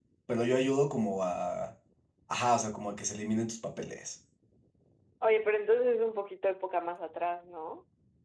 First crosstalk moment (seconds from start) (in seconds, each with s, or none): none